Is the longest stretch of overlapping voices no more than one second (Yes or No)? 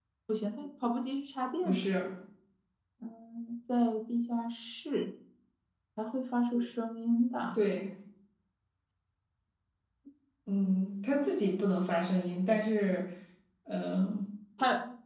Yes